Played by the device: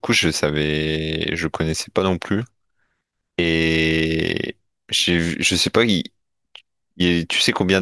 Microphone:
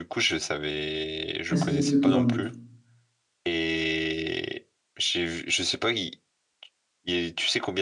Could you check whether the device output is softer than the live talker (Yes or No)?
Yes